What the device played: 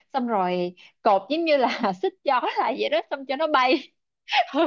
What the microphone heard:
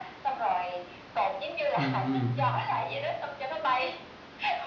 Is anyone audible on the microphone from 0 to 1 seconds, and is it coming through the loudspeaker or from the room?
echo only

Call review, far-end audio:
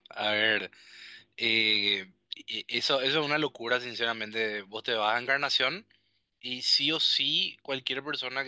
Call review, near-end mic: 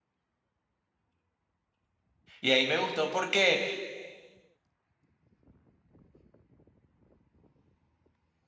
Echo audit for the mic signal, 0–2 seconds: neither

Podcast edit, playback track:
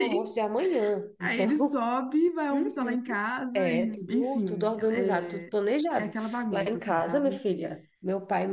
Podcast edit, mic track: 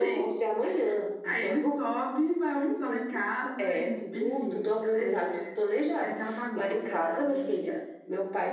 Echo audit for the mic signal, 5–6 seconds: echo only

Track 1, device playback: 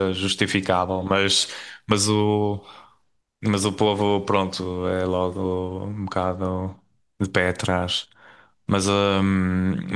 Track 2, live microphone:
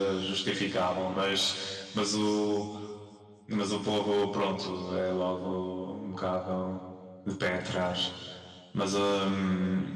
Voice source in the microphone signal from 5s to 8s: echo only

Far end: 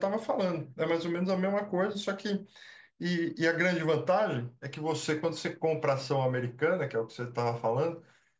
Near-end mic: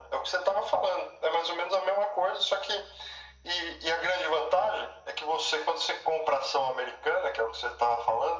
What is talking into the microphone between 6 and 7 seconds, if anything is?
echo only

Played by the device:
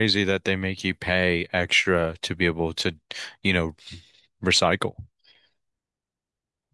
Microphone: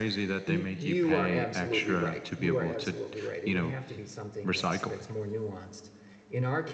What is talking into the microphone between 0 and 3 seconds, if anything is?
both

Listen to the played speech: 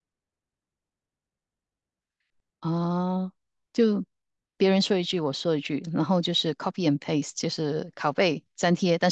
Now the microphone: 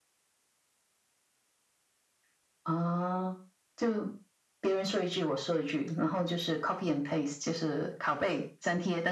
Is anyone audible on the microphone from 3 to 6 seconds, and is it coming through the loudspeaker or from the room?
echo only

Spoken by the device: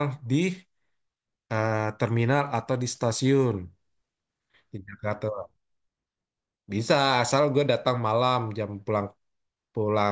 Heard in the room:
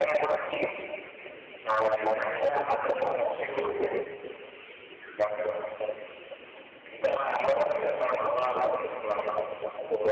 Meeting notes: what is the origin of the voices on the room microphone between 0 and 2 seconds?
echo only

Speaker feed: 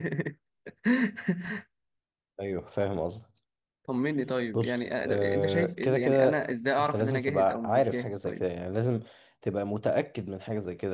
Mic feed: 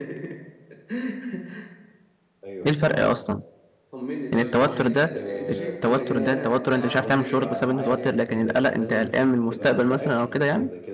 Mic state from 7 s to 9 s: both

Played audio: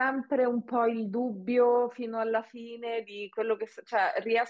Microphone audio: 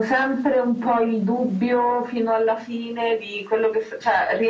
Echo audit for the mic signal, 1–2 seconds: echo only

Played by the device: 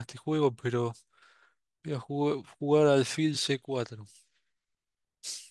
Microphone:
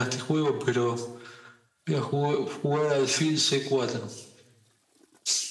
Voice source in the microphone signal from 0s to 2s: echo only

